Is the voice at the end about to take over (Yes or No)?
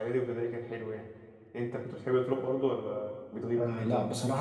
Yes